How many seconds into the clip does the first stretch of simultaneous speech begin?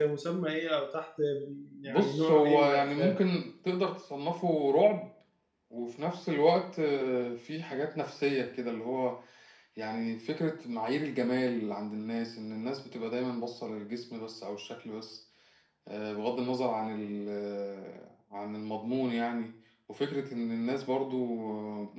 1.8 s

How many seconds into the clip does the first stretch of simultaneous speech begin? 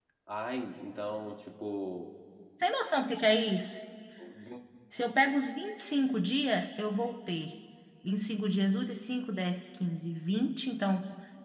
none

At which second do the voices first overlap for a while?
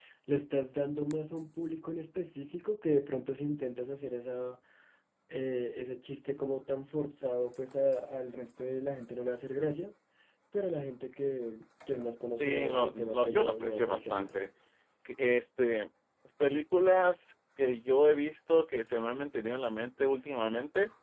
12.4 s

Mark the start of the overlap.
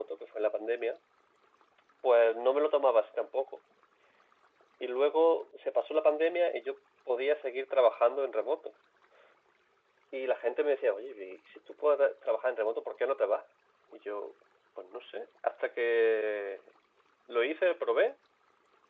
none

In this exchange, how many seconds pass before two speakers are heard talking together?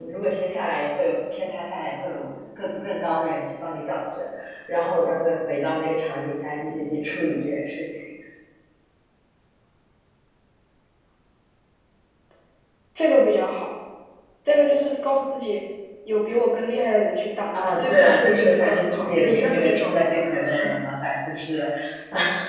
17.5 s

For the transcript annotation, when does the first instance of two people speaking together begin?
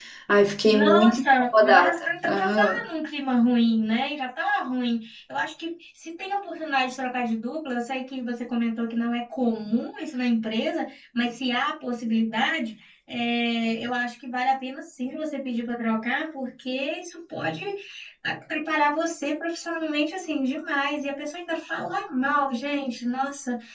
0.7 s

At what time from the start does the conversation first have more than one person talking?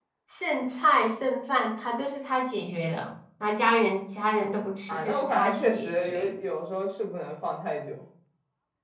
4.9 s

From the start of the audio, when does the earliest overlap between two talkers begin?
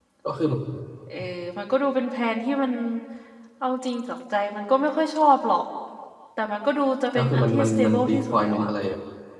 7.2 s

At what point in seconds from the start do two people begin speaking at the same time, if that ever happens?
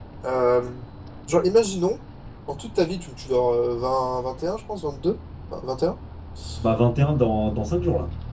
none

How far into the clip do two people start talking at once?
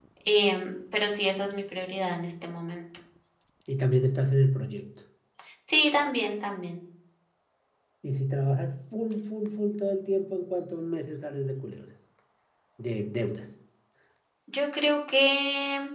none

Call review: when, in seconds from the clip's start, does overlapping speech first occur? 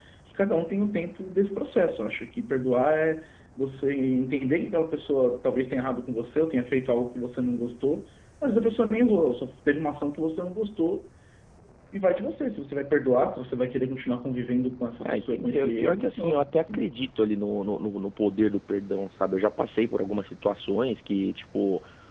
15.0 s

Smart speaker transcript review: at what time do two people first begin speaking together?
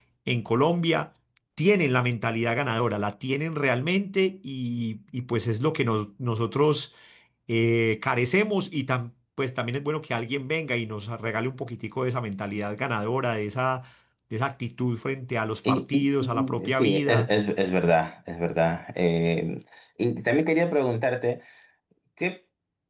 15.6 s

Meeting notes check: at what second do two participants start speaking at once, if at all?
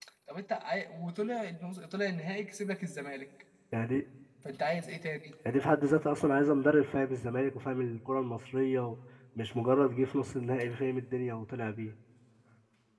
none

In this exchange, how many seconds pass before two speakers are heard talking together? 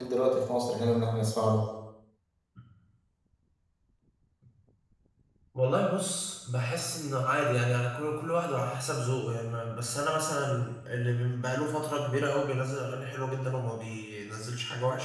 none

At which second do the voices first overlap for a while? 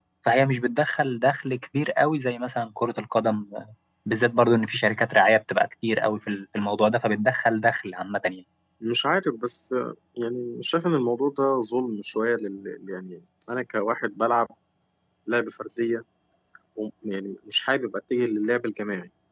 none

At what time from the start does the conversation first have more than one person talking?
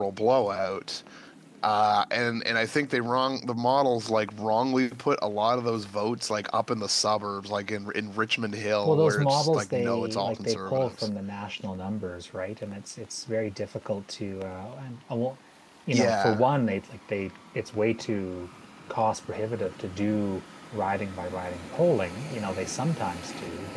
8.8 s

